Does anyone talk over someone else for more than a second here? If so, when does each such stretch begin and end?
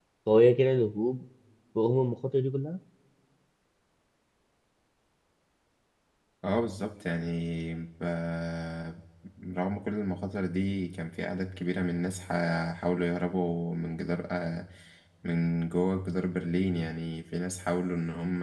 none

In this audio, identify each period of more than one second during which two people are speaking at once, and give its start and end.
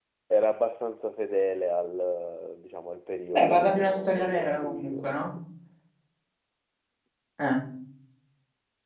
3.3-5.2

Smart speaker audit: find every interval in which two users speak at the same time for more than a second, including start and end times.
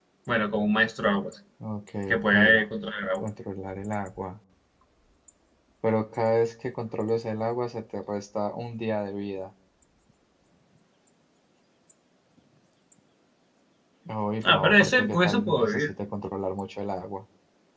14.4-15.9

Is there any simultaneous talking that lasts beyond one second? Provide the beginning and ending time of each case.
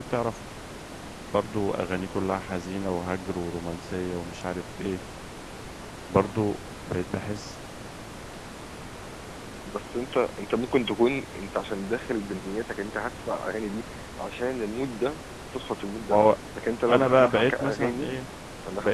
16.9-18.1

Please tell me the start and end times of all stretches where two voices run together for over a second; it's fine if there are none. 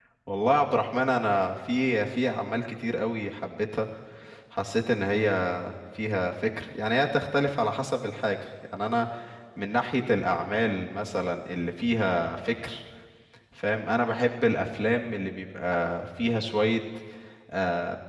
none

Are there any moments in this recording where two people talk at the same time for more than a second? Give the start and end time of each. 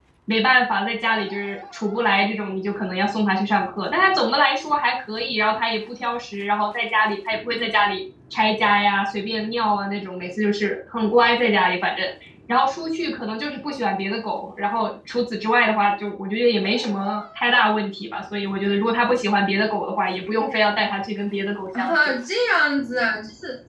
none

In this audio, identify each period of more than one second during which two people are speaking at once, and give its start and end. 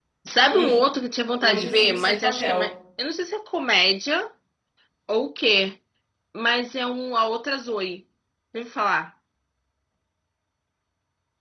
1.4-2.6

